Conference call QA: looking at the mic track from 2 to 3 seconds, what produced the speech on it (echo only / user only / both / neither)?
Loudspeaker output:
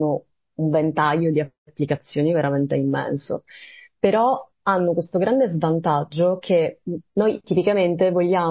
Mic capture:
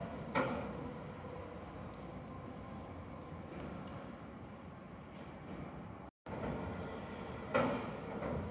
neither